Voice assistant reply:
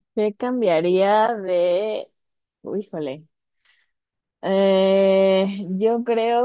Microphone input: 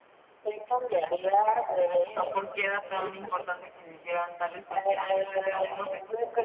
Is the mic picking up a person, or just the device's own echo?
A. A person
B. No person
A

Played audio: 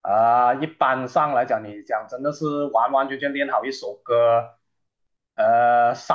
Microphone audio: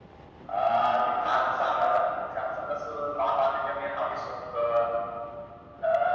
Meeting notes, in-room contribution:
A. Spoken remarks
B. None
B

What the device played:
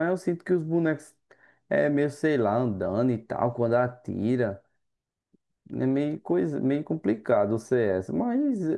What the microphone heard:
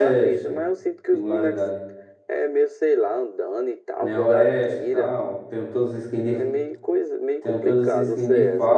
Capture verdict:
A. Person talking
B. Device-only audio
A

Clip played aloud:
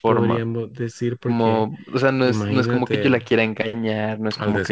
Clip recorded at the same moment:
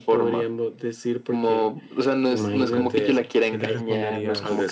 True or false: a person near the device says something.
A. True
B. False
A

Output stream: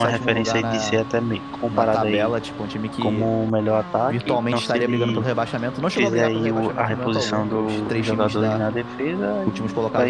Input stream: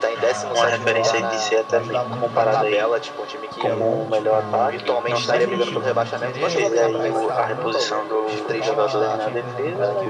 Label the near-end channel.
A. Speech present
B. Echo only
A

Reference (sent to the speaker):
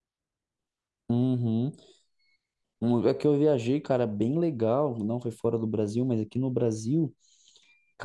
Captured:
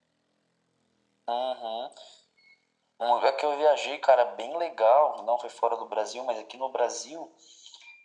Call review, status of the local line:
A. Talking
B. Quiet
B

